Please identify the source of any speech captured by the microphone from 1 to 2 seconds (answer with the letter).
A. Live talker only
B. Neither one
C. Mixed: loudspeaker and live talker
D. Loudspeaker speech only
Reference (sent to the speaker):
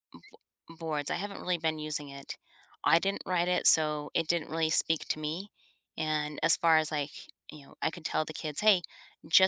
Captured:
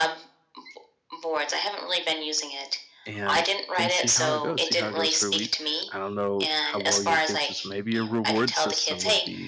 D